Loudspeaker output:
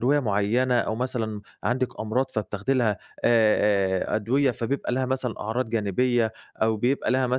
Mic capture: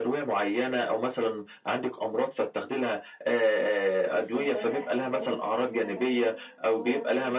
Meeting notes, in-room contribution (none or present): present